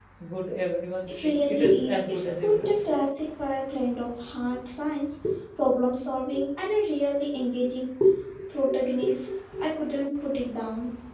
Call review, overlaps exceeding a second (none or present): present